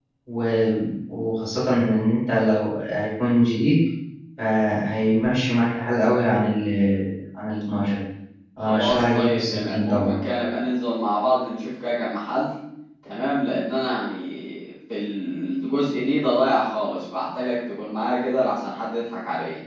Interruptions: present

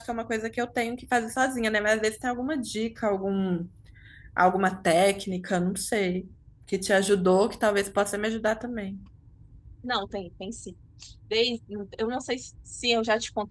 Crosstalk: none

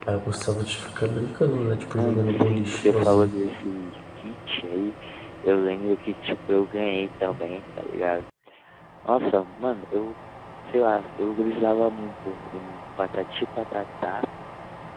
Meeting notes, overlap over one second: present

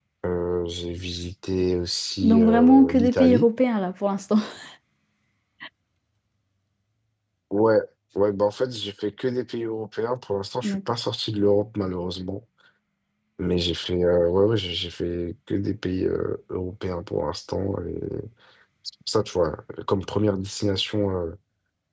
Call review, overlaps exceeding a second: present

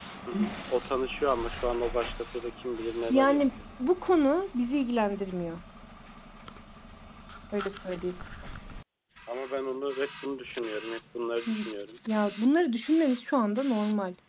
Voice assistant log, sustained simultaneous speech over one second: none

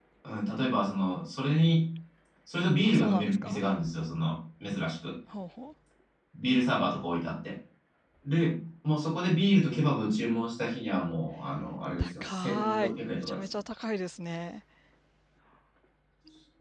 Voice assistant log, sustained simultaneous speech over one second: present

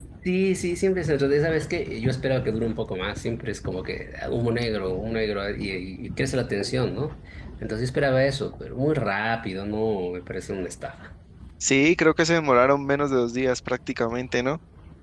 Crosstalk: none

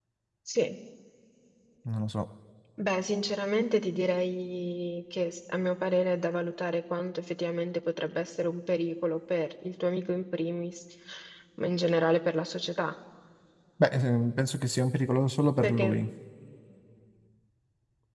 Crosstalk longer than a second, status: none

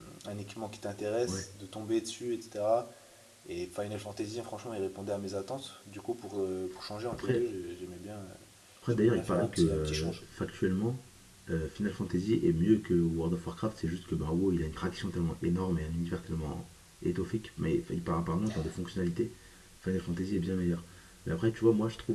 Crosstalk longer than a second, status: present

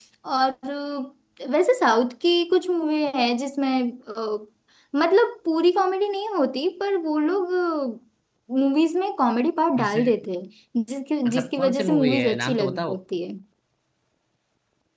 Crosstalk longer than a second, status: present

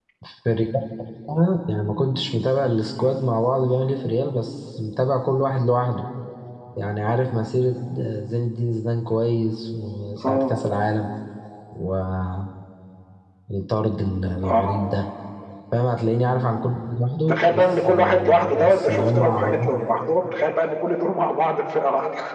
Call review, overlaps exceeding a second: present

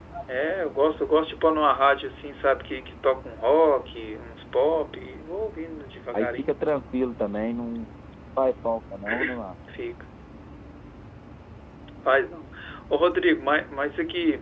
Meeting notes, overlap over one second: none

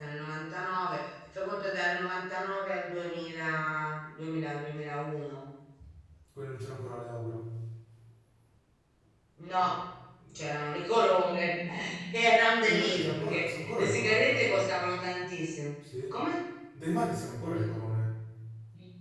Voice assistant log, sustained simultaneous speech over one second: present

